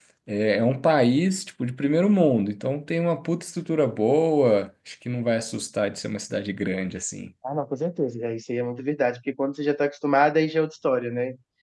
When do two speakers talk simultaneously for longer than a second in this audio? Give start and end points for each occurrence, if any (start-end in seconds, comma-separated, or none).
none